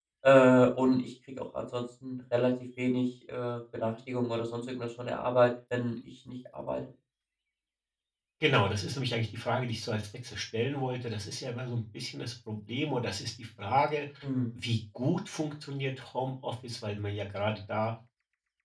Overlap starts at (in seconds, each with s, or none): none